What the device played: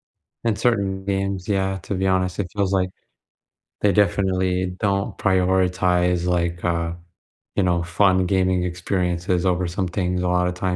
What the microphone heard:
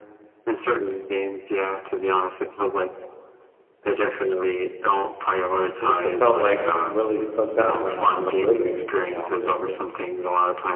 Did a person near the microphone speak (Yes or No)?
Yes